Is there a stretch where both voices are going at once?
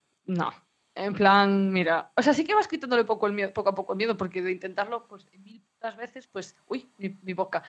No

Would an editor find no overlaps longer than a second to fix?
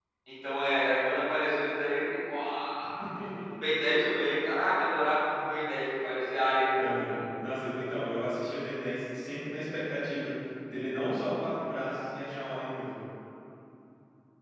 Yes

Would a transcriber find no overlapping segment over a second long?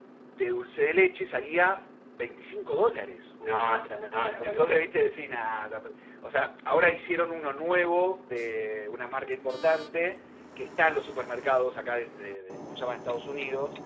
Yes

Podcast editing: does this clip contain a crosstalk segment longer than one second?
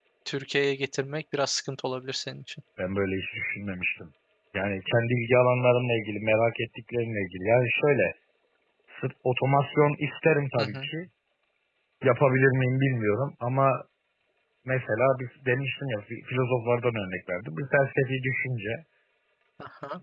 No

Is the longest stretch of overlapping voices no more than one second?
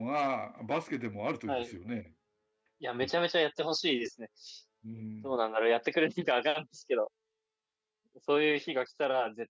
Yes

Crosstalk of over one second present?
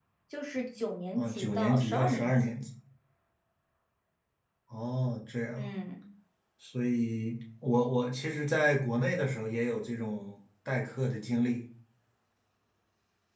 Yes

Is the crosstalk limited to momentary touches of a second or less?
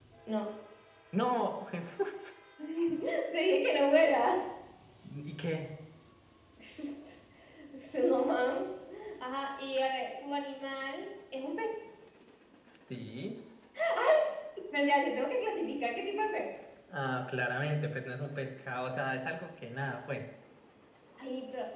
Yes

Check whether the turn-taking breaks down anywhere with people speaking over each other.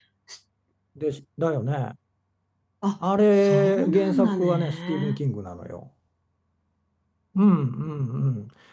Yes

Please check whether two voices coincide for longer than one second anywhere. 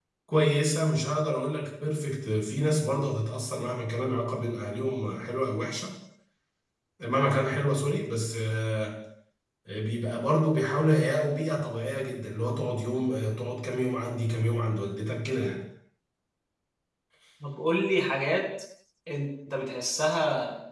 No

